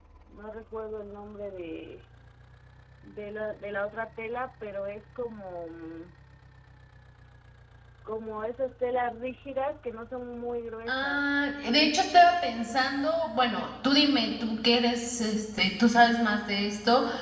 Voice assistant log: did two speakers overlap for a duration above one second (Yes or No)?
No